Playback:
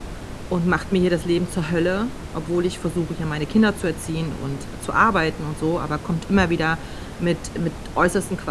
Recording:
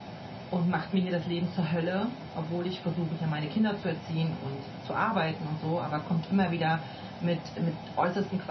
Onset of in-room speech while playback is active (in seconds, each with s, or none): none